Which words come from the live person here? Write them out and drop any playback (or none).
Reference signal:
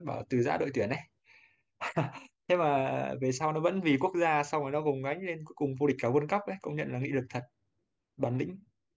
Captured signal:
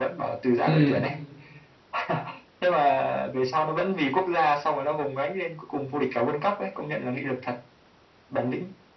ừ